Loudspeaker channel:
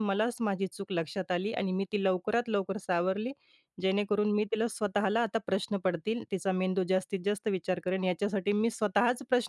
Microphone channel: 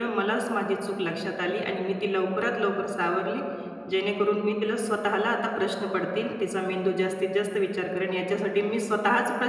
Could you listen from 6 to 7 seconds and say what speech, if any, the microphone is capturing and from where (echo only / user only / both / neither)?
echo only